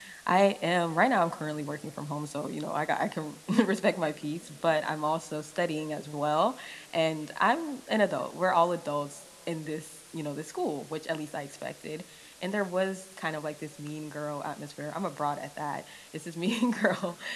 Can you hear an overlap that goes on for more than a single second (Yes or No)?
No